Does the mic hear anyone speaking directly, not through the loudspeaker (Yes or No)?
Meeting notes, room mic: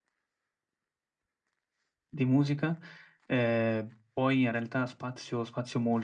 Yes